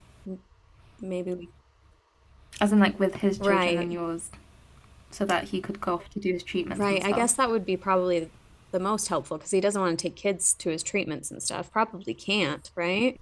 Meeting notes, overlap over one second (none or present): none